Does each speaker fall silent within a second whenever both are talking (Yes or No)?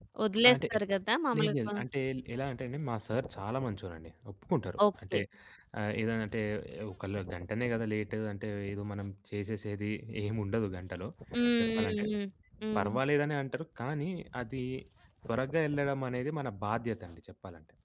Yes